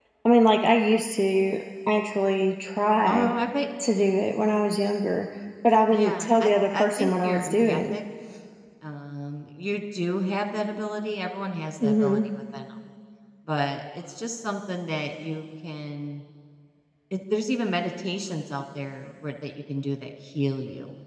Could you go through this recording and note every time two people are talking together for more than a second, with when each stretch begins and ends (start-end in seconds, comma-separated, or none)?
5.9-8.0